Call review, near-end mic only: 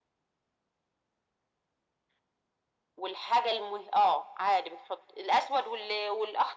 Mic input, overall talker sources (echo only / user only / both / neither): echo only